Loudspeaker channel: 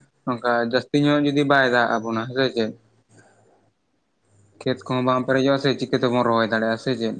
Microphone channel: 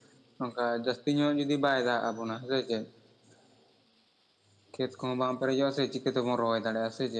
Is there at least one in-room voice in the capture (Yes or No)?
No